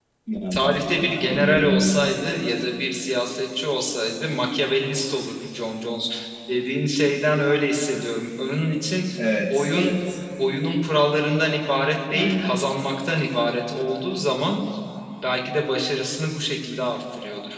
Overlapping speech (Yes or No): Yes